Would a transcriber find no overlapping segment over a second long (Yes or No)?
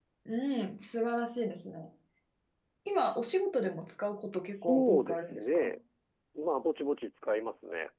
No